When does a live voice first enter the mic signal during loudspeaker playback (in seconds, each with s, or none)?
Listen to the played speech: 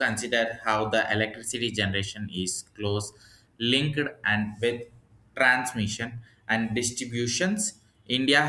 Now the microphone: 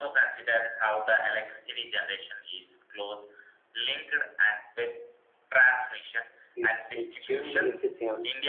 6.5 s